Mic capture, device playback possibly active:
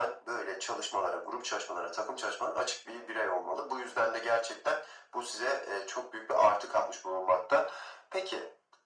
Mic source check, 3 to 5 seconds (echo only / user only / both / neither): echo only